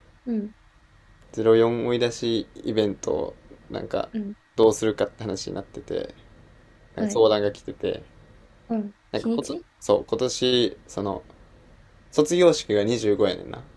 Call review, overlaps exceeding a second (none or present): none